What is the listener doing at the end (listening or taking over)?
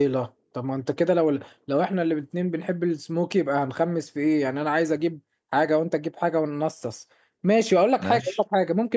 listening